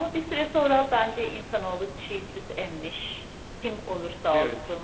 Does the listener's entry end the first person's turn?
No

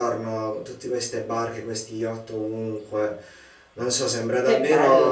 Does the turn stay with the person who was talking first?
Yes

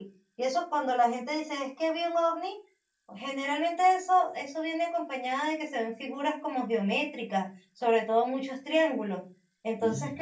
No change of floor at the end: Yes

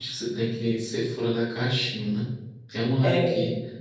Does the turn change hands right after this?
No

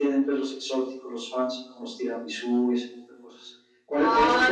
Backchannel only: Yes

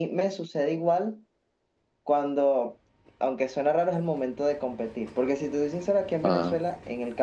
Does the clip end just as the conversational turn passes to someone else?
No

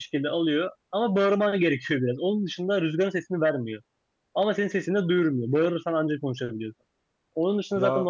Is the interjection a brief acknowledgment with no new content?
Yes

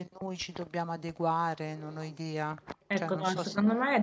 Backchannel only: No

